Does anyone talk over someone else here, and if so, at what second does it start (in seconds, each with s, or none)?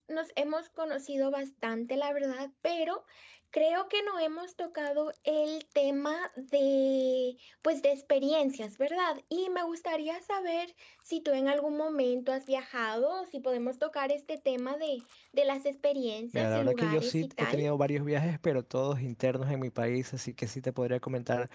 16.3 s